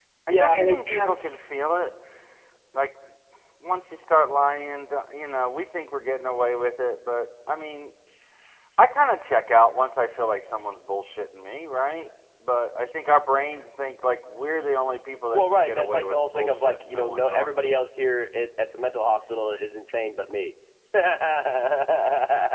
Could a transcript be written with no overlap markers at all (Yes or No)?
No